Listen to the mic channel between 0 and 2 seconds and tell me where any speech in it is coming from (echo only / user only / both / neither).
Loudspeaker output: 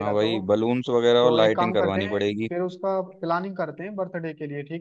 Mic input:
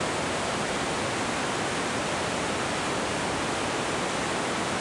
neither